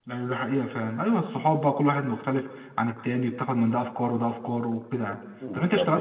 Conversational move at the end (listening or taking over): listening